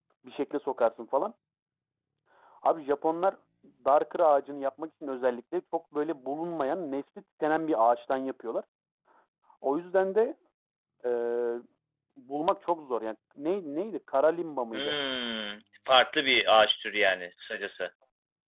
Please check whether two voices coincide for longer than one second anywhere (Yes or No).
No